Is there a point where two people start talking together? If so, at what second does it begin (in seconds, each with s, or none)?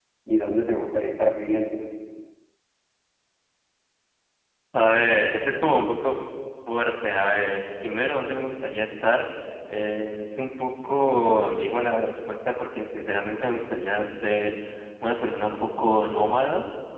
none